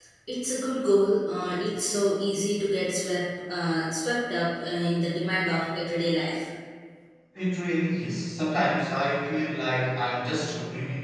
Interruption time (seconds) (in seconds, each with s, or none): none